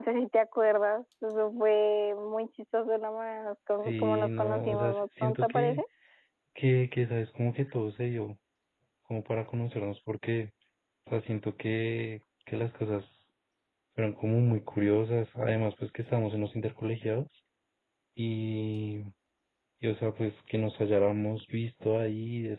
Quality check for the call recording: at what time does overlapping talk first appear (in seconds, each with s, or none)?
3.8 s